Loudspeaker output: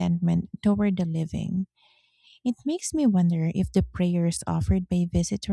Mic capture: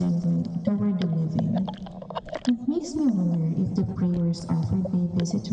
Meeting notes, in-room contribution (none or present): none